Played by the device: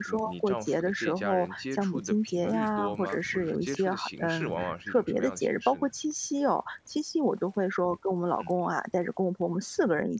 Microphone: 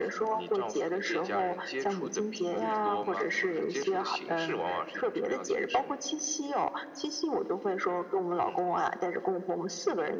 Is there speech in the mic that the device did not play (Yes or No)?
No